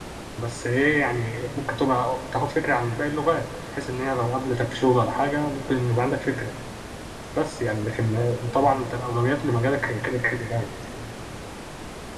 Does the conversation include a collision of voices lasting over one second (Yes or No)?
No